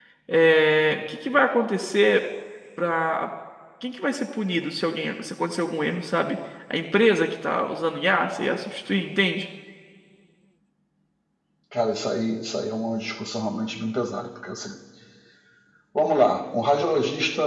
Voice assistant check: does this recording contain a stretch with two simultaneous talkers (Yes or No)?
No